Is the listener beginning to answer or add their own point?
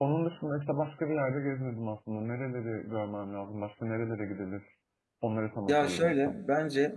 Yes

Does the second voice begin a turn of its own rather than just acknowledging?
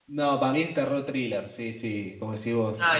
No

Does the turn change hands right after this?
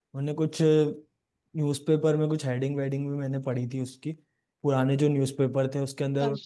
No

